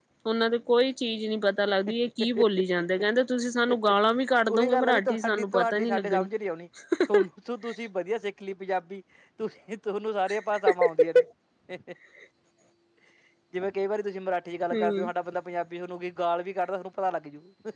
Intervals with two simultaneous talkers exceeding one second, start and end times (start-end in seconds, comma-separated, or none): 4.7-6.3